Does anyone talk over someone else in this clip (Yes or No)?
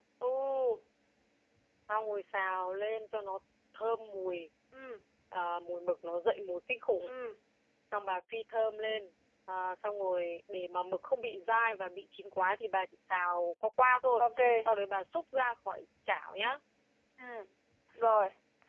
No